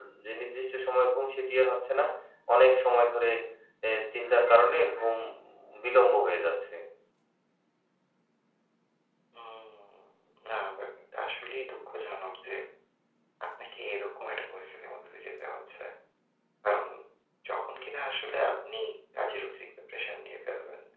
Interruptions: none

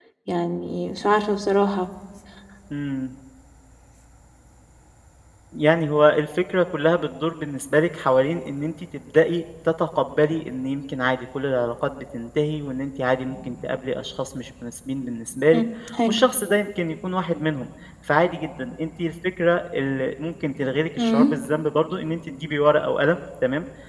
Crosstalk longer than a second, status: none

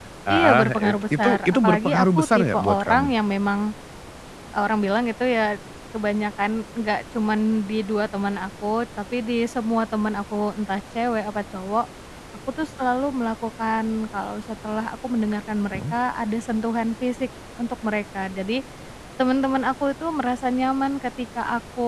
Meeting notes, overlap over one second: present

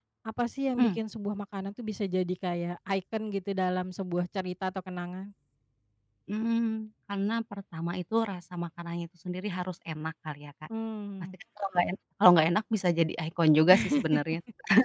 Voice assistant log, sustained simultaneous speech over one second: none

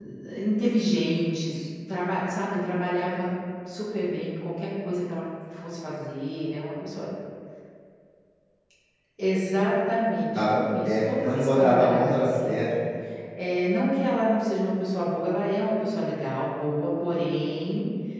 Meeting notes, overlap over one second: present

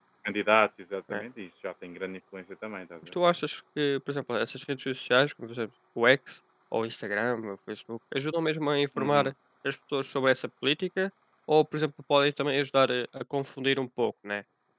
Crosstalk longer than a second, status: none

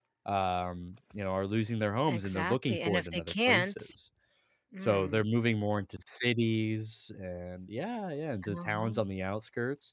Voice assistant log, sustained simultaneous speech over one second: present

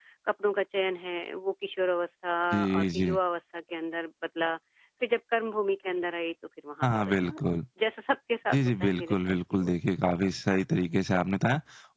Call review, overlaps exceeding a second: present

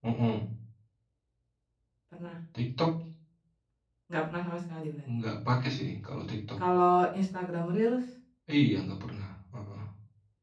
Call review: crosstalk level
none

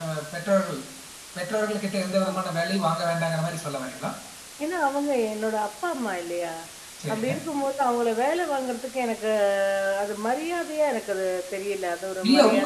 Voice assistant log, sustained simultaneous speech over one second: none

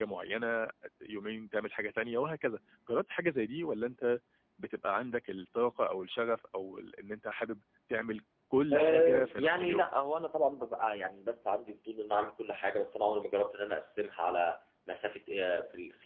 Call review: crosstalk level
present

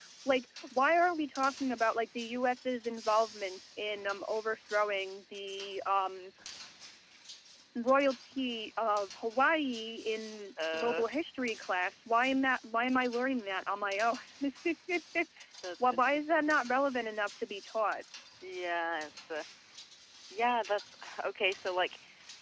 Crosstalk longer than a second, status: none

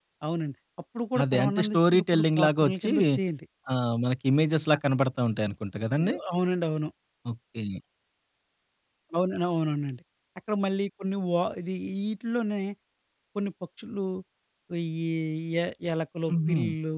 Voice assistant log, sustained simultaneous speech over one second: present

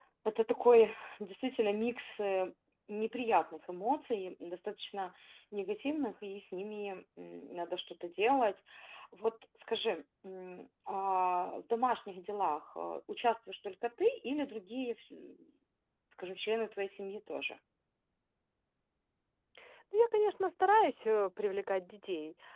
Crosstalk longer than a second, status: none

